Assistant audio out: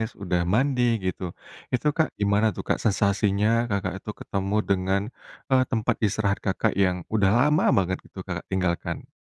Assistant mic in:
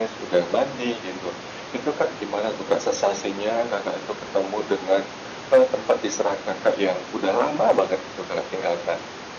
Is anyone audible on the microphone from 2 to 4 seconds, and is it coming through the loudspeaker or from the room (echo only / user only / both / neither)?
echo only